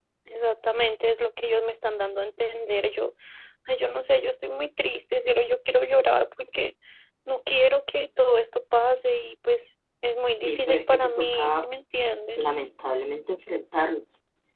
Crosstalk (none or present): present